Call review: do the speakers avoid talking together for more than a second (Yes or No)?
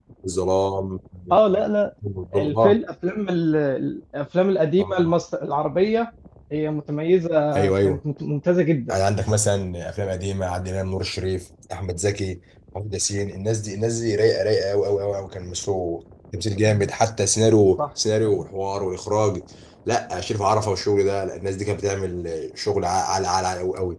Yes